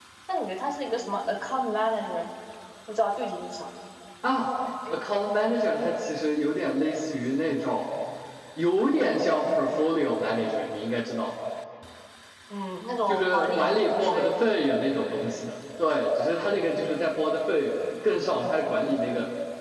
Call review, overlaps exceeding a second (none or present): present